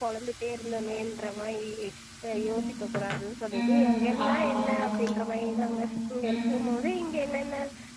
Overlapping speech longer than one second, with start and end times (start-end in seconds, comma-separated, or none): 3.6-4.8